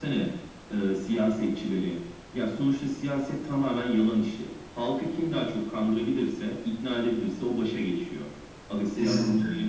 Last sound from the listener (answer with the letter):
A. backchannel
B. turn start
A